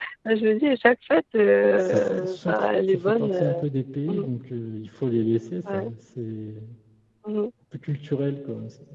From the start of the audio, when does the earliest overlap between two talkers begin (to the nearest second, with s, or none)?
2 s